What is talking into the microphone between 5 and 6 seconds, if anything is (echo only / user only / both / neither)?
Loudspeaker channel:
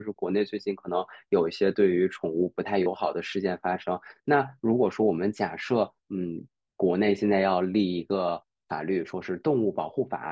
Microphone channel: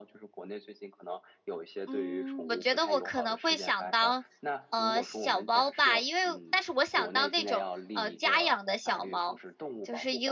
both